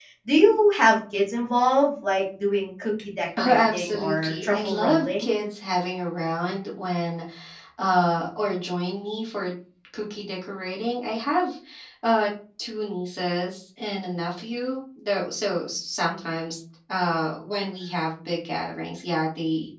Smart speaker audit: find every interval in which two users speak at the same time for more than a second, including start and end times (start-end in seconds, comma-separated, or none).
3.4-5.3